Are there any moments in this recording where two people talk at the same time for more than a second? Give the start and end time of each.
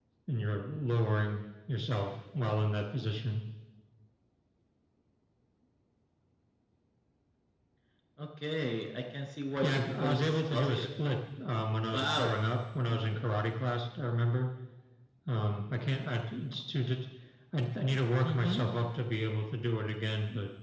9.6-10.9

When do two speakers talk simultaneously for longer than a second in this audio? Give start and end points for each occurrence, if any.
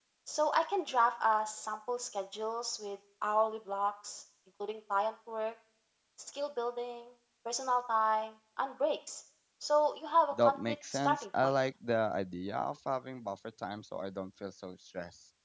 10.3-11.5

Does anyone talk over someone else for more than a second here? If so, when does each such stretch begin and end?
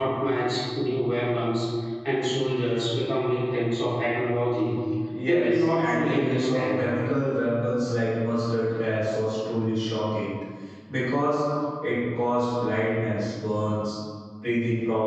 5.3-6.8

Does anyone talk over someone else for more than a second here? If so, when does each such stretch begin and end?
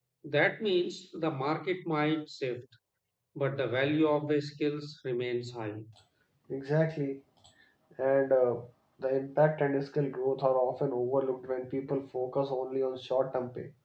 none

